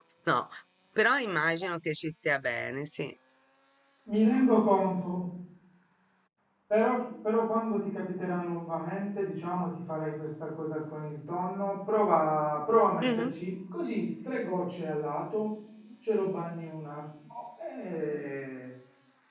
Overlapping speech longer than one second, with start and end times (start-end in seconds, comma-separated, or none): none